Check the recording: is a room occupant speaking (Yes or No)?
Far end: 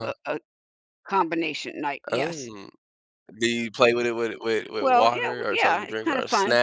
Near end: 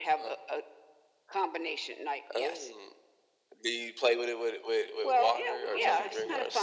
Yes